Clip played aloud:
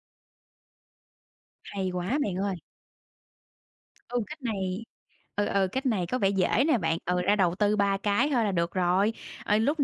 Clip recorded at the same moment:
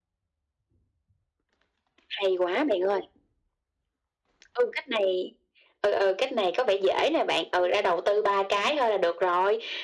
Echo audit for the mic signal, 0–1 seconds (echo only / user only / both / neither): neither